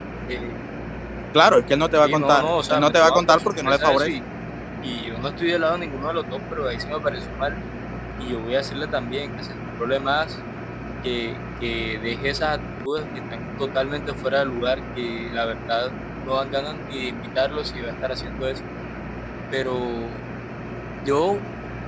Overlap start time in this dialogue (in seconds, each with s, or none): 2.0 s